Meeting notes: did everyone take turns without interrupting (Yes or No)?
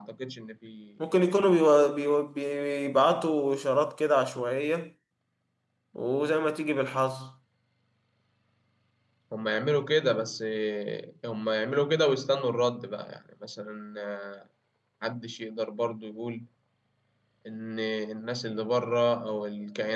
Yes